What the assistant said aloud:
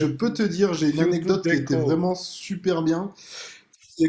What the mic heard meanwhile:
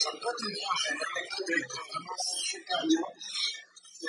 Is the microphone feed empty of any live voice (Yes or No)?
Yes